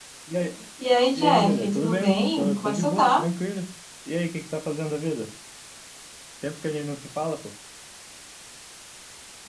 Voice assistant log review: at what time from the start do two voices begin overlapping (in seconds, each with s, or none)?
1.1 s